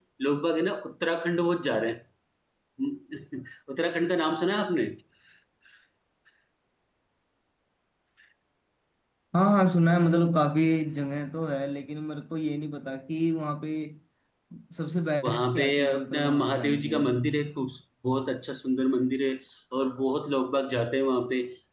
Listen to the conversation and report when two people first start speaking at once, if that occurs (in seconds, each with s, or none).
15.2 s